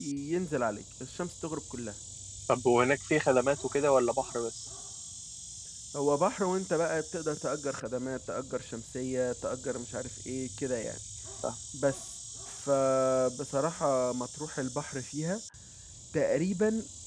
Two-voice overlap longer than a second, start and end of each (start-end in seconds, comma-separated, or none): none